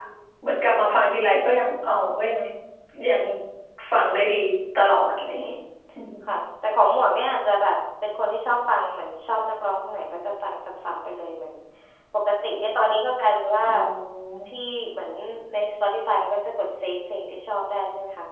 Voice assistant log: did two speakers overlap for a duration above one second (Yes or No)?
No